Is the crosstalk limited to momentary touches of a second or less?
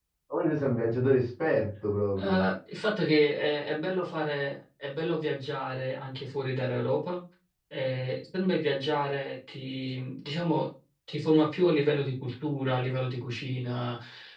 Yes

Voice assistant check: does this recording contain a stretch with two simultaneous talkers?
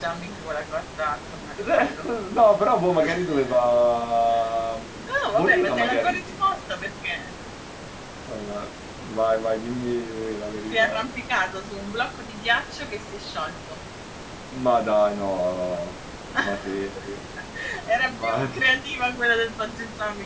Yes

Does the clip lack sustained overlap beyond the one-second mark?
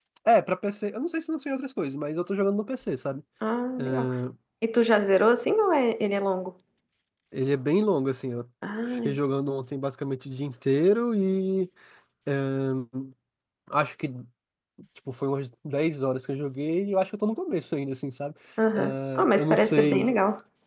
No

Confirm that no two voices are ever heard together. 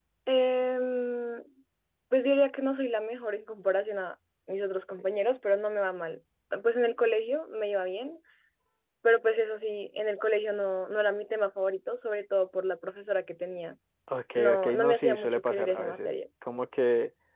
No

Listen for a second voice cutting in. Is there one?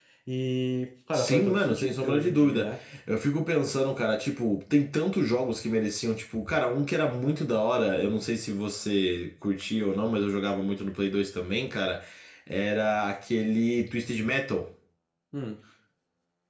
Yes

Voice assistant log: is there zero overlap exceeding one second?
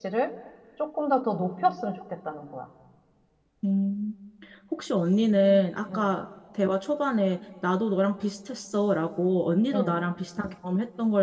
Yes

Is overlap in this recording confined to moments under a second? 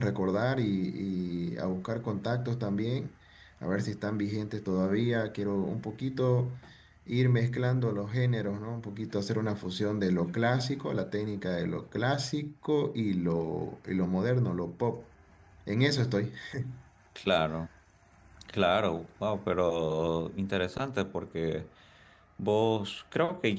Yes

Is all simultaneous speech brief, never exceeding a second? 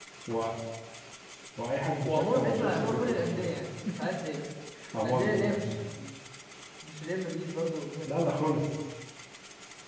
No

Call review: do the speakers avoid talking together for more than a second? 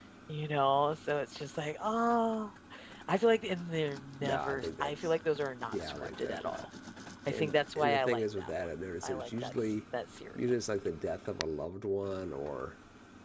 No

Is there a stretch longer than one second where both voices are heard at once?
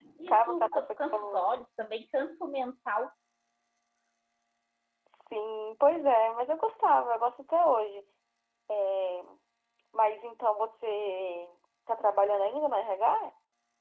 Yes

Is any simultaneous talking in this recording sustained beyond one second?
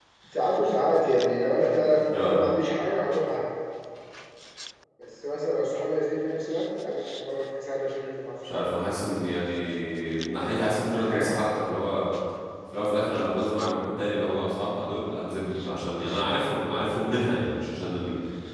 No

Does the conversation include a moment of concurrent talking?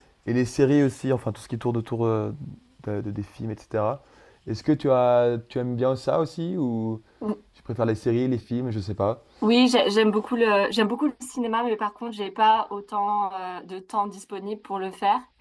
No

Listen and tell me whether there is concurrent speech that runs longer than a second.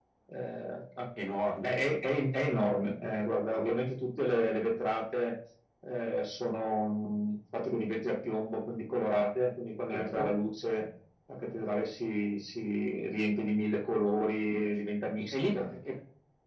No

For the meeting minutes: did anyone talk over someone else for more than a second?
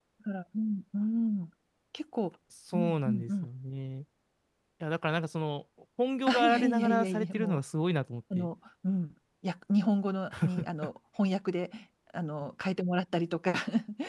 Yes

